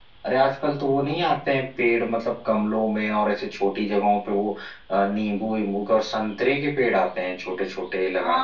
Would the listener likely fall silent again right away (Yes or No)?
No